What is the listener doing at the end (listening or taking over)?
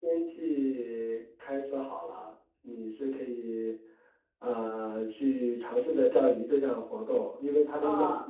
listening